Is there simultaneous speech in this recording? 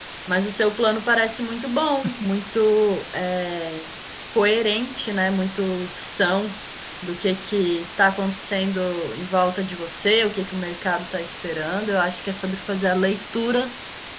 No

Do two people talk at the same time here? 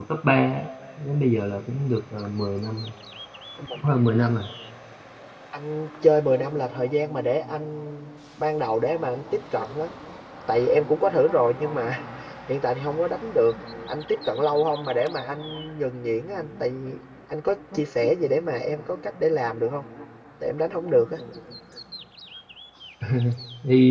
No

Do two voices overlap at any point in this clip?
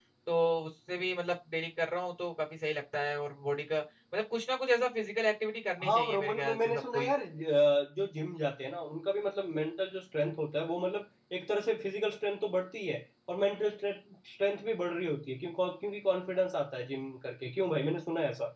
Yes, from 5.8 s

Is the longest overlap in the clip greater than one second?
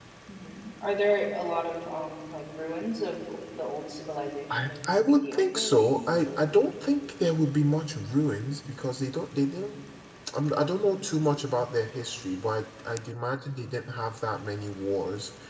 Yes, from 4.5 s

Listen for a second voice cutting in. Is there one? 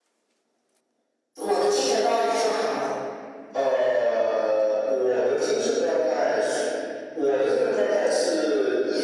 No

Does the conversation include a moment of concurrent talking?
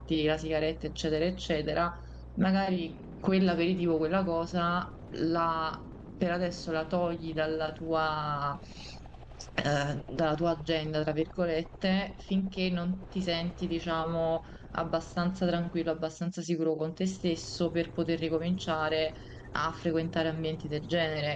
No

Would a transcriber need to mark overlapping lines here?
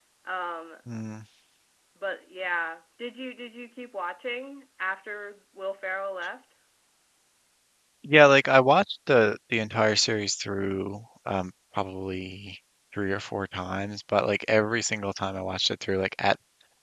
No

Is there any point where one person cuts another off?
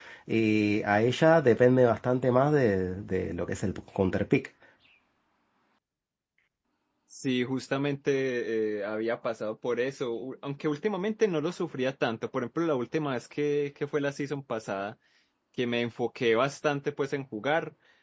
No

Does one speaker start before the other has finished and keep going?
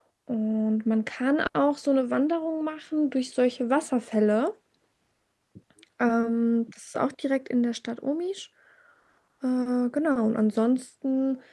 No

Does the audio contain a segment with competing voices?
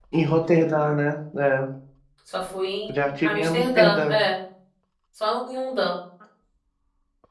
Yes, from 2.9 s

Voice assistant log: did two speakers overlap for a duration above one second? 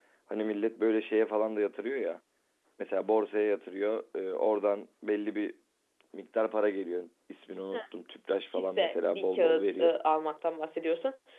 Yes, from 8.5 s

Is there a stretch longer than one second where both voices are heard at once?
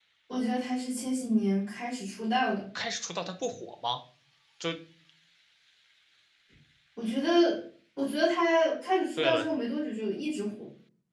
No

